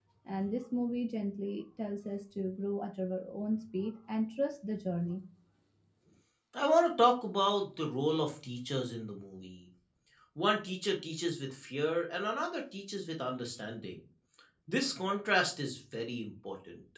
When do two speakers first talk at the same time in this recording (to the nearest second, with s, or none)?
none